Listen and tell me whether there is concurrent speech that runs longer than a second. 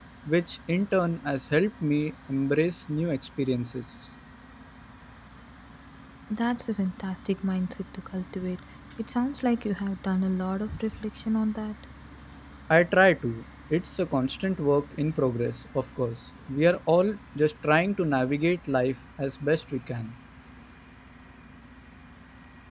No

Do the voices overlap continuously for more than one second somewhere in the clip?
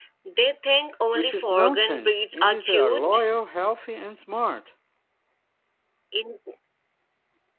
Yes, from 1.1 s

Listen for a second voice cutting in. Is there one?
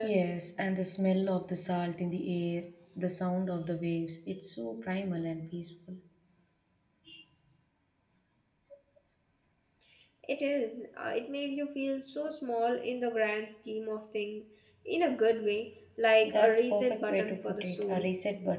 Yes, from 16.2 s

